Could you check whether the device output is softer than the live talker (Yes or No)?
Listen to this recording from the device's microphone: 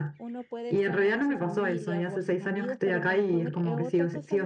No